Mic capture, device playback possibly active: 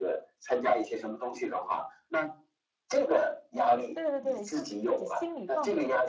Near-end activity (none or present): present